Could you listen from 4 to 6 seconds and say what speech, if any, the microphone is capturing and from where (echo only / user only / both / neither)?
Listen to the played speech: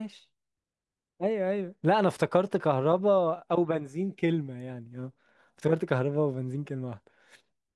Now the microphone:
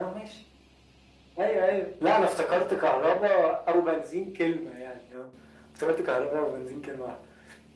echo only